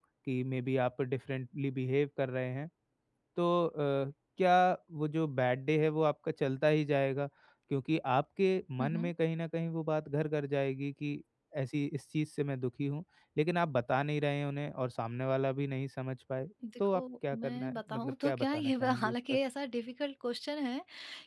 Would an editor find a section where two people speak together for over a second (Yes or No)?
Yes